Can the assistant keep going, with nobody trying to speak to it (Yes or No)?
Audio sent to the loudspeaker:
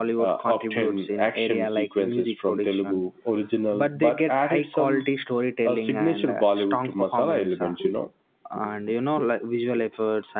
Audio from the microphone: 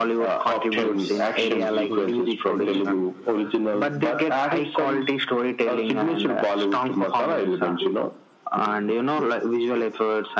No